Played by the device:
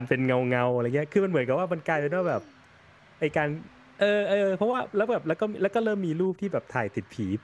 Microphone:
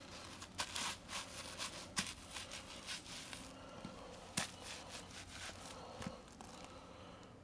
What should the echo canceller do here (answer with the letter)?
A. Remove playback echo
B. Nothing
B